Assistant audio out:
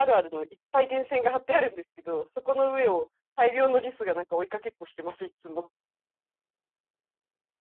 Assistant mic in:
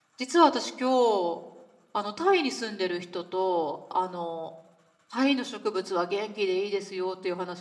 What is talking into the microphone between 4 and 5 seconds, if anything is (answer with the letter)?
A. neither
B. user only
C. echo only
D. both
B